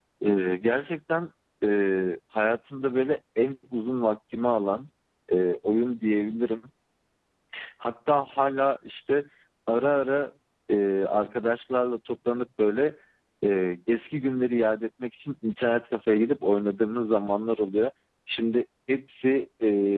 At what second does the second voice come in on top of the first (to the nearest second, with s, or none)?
none